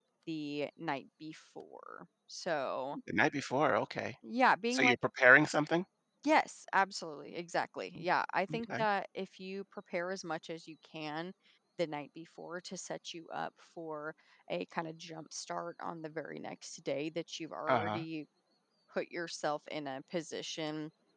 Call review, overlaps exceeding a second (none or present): none